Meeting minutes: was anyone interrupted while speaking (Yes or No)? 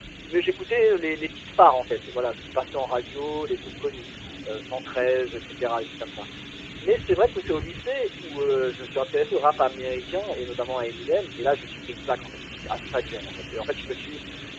No